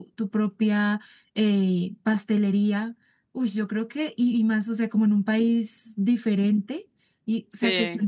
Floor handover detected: No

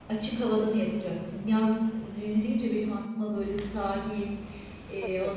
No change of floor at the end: Yes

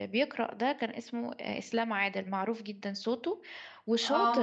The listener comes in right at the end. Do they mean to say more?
No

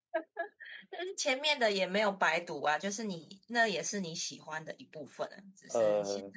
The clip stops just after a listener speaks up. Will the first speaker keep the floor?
Yes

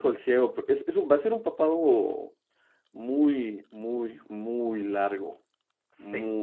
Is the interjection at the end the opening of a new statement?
No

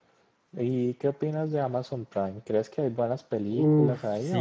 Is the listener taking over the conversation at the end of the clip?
Yes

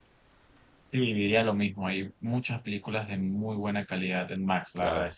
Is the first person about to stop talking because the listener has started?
No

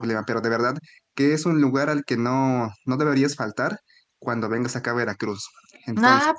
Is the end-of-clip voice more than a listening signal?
Yes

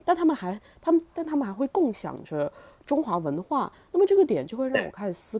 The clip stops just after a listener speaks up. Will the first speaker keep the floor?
Yes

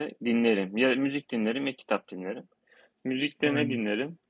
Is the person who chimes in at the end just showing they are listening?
Yes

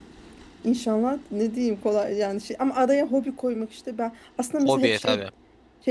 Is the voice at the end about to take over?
No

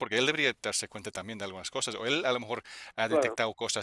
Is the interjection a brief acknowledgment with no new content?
Yes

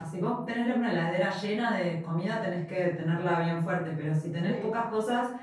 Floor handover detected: No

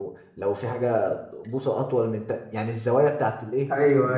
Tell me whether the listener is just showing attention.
No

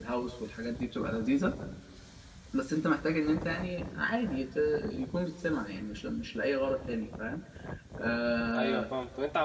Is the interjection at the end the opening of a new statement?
Yes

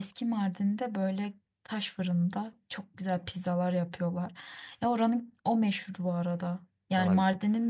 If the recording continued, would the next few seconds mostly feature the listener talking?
No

